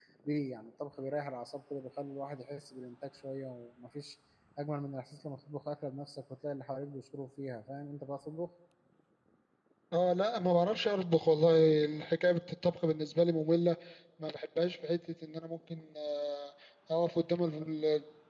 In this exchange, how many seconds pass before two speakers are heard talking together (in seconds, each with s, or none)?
none